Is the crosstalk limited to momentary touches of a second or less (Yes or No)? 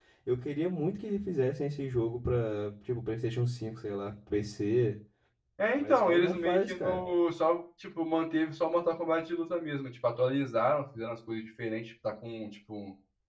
No